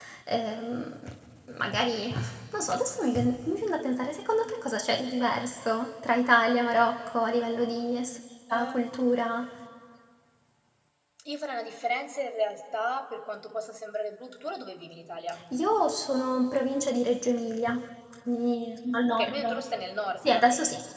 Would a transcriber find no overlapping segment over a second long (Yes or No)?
Yes